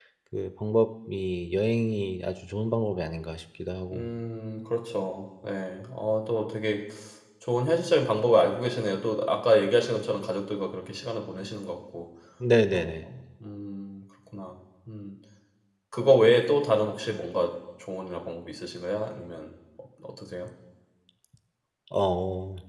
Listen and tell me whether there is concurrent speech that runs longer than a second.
No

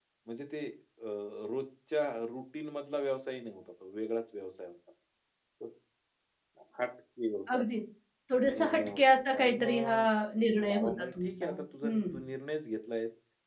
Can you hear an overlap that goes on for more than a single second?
Yes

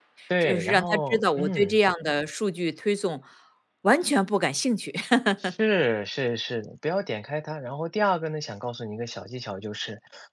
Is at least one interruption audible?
Yes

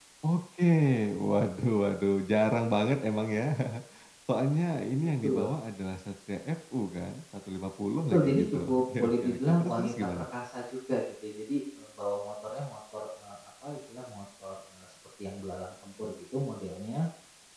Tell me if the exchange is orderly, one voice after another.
No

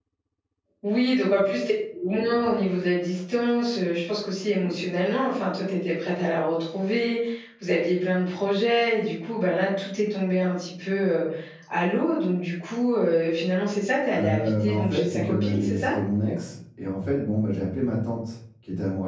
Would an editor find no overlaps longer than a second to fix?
No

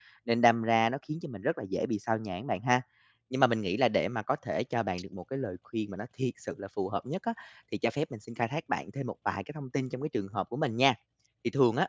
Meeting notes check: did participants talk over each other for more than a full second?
No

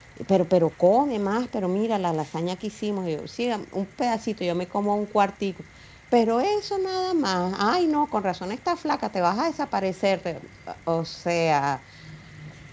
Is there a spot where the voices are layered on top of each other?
No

